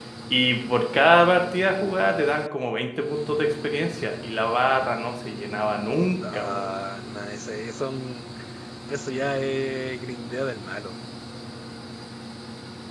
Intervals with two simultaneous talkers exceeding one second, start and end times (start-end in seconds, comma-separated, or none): none